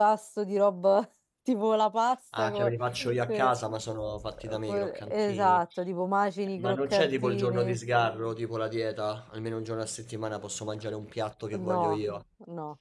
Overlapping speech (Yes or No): Yes